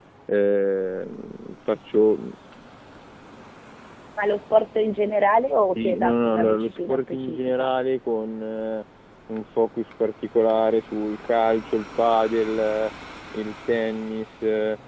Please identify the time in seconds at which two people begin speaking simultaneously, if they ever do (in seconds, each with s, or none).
5.8 s